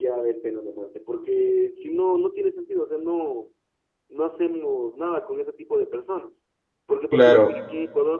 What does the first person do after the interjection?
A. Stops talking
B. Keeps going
B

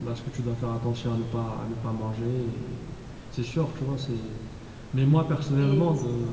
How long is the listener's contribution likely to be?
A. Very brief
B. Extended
A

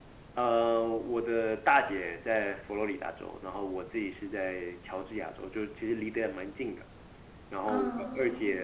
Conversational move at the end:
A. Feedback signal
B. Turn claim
A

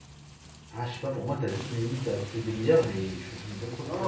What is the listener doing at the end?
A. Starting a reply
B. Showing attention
A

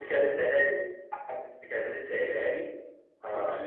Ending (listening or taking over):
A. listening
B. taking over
A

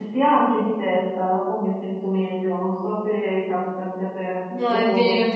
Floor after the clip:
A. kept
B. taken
B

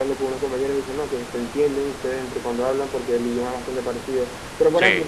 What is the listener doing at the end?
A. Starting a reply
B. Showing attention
B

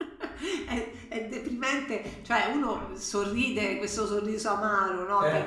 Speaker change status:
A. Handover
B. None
B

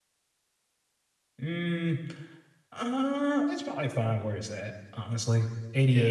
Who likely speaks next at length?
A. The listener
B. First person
B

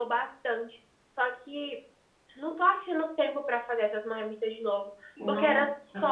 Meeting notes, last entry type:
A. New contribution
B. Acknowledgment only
B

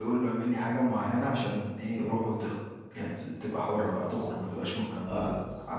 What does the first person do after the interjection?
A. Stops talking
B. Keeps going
B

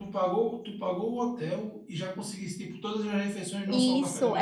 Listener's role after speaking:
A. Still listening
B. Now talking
B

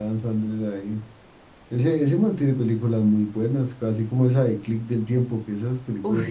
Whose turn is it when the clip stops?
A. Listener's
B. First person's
A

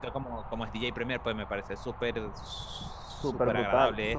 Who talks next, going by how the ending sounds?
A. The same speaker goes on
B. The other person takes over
B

